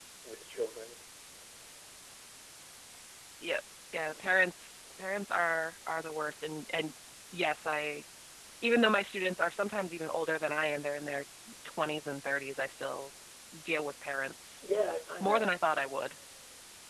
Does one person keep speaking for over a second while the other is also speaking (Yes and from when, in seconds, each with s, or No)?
No